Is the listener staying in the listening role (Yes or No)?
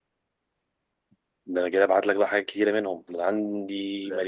Yes